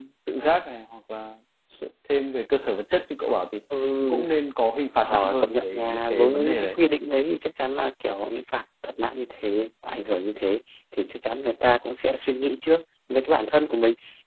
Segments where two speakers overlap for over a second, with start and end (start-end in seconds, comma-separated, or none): 5.0-6.8